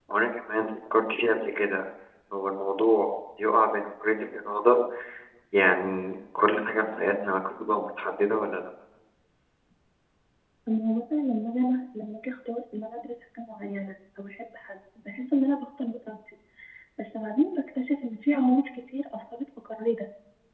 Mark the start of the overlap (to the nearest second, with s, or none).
none